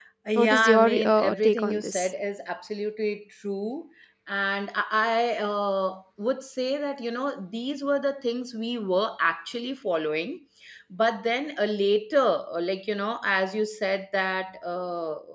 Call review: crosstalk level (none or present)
present